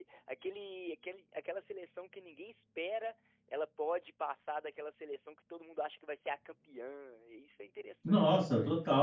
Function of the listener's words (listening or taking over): taking over